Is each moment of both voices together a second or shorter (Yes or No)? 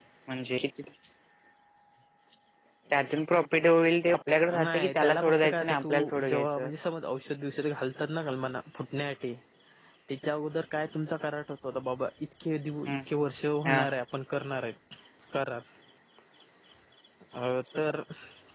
No